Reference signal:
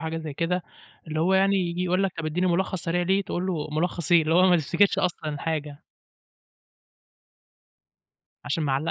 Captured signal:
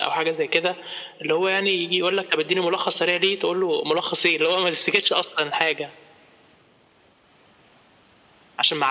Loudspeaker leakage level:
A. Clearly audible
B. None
A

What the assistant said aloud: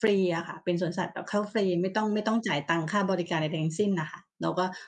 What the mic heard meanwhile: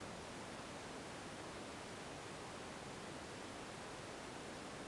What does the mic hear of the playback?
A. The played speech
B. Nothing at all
B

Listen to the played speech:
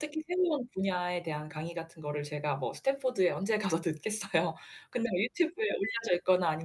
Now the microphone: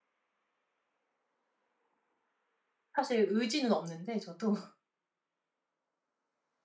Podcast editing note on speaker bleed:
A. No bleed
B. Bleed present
A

